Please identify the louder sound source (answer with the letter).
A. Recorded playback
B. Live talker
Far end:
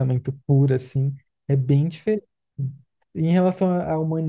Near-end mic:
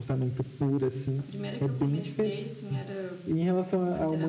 A